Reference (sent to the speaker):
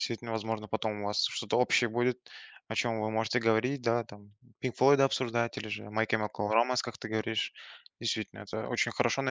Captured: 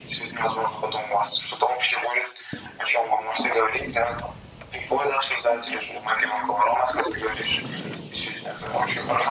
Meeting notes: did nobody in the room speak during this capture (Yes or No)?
Yes